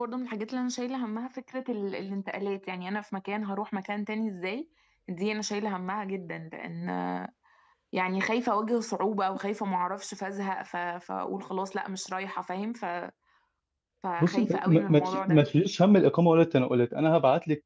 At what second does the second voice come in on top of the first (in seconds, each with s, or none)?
14.2 s